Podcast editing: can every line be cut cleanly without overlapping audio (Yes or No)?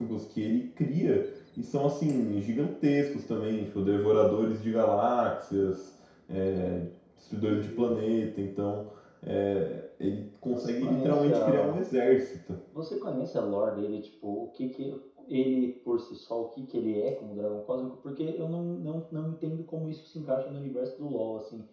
No